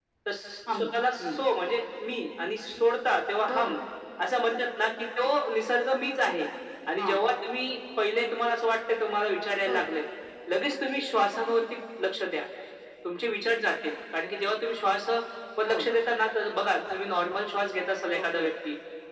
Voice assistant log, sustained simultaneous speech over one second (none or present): none